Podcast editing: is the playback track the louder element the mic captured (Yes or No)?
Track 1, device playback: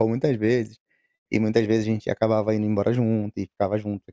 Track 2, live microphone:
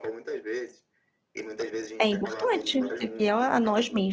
No